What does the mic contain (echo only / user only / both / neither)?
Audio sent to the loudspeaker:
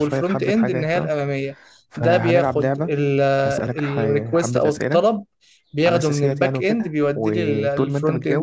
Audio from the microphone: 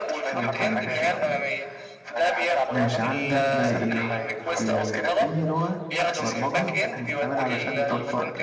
both